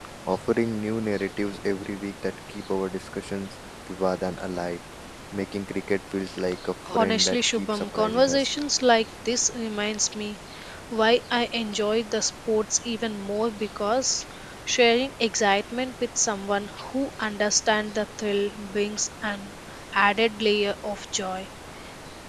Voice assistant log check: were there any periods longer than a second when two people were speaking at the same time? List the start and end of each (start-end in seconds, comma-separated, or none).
6.9-8.5